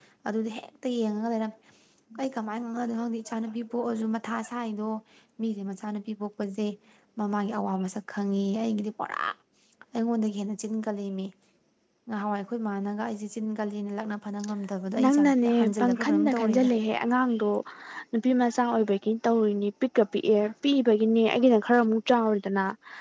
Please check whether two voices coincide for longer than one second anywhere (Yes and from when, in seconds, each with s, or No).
Yes, from 14.9 s